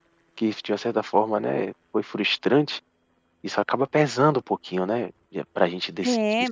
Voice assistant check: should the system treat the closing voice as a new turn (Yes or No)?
Yes